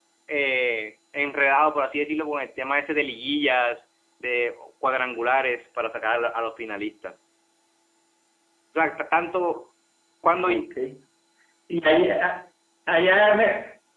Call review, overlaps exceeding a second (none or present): none